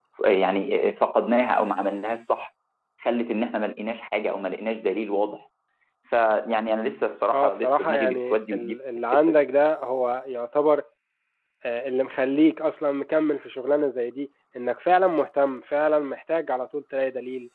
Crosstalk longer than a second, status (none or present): present